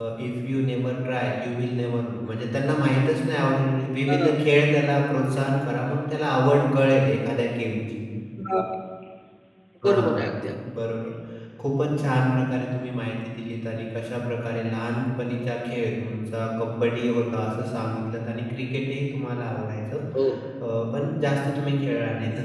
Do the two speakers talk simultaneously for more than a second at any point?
No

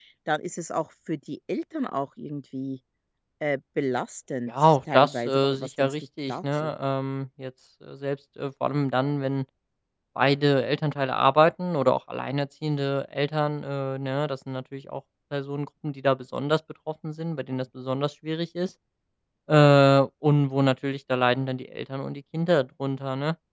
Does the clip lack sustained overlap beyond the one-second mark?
No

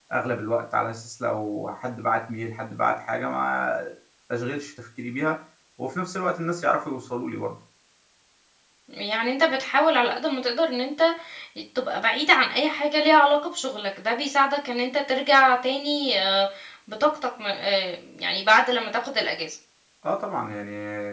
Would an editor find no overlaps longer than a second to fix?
Yes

